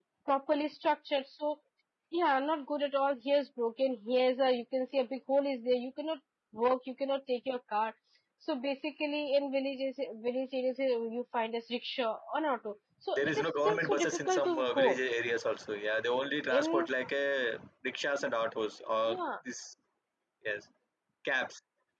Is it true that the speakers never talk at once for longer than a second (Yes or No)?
No